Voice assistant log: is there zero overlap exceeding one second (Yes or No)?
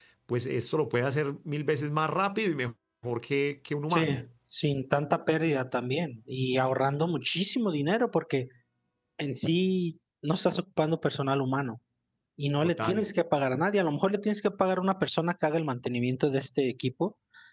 Yes